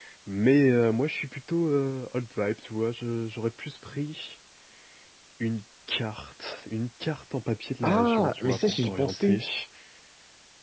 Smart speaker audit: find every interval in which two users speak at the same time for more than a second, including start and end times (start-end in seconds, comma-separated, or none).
7.8-9.4